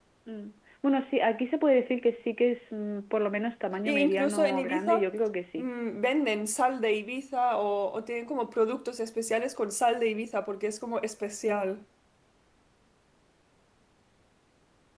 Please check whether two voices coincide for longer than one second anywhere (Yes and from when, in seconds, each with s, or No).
Yes, from 3.8 s